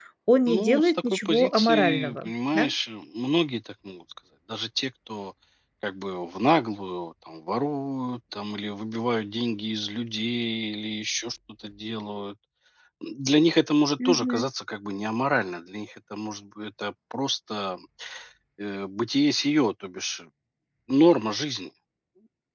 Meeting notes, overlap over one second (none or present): present